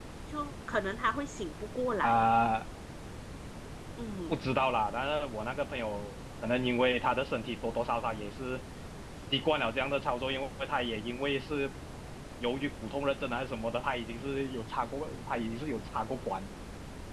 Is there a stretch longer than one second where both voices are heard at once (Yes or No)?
No